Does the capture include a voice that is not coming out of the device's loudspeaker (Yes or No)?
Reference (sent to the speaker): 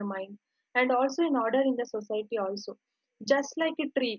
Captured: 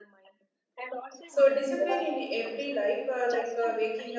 Yes